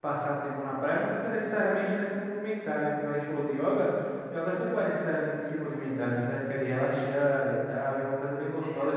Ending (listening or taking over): listening